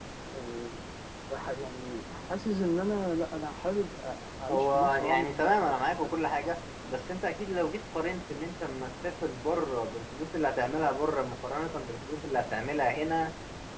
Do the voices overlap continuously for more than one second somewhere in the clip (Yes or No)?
Yes